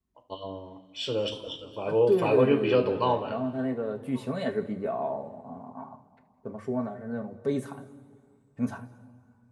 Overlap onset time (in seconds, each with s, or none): 1.9 s